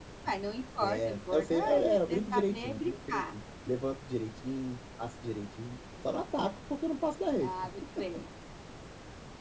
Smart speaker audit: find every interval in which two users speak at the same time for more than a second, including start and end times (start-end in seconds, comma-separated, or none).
0.8-3.2